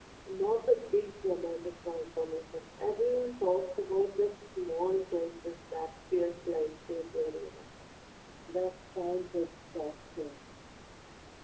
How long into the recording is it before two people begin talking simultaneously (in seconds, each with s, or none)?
none